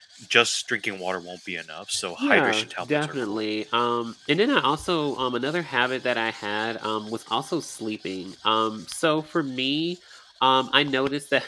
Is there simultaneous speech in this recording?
Yes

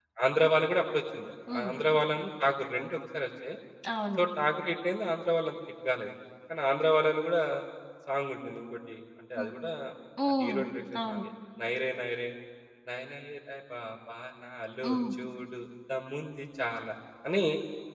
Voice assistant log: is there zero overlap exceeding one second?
Yes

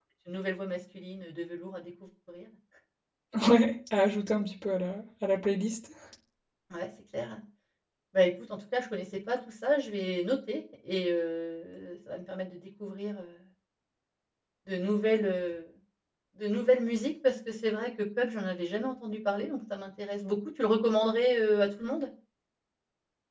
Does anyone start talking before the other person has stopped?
No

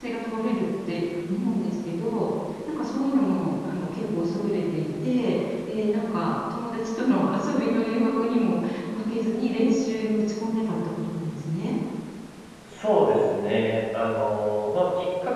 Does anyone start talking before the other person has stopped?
No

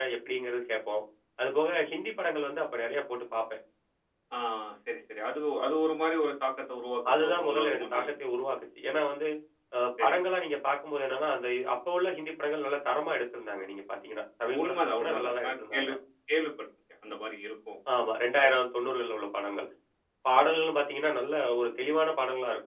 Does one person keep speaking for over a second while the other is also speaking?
Yes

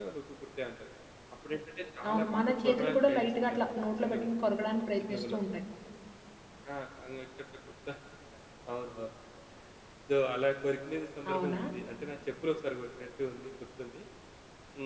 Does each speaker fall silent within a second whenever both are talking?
No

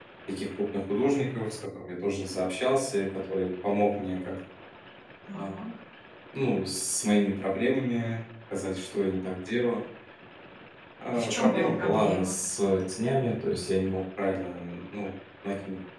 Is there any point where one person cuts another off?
Yes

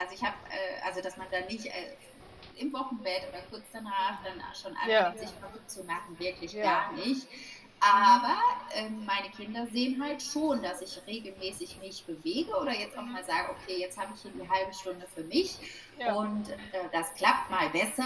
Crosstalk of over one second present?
No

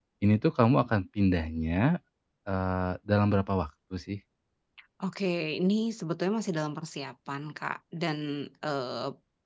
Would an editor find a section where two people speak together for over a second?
No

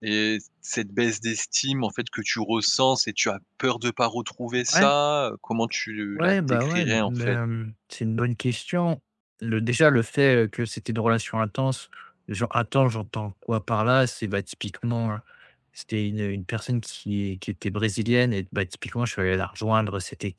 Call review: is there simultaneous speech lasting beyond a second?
Yes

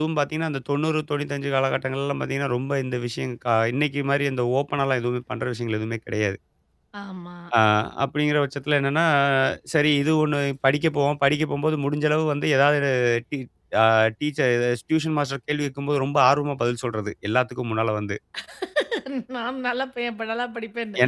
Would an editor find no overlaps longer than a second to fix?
Yes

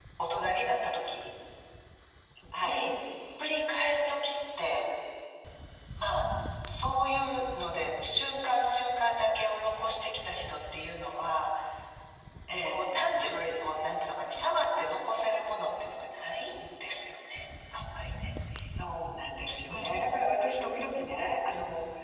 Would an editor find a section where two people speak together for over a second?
No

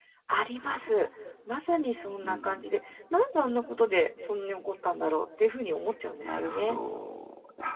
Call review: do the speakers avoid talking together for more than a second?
Yes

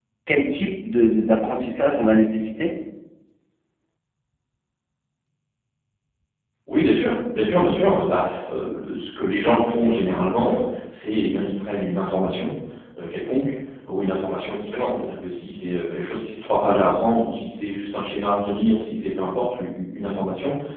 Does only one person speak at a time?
Yes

